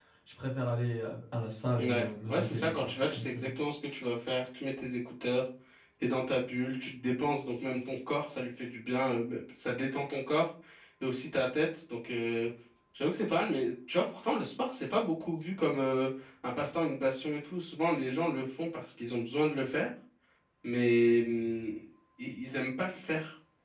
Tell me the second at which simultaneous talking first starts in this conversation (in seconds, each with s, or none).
1.8 s